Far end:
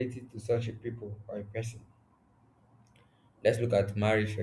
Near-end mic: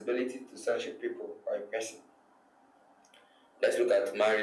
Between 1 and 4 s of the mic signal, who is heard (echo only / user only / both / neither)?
echo only